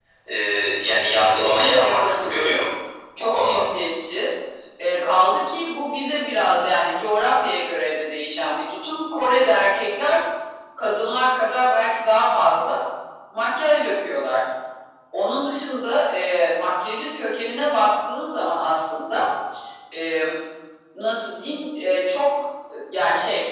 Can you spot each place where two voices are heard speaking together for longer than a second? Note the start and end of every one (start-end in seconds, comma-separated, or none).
1.3-2.6